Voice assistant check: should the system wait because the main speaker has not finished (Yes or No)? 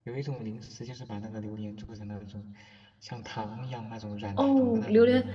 No